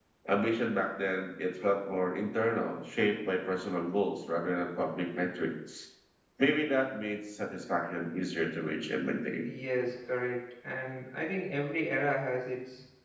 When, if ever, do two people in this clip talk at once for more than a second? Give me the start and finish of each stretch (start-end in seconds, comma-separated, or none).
none